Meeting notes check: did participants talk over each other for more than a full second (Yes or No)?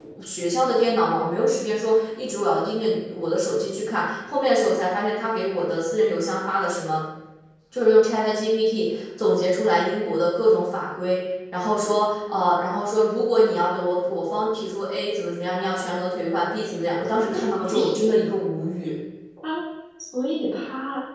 No